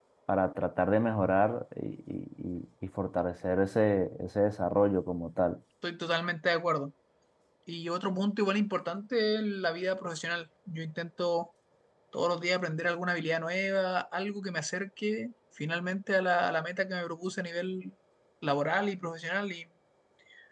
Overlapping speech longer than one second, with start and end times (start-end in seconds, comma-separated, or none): none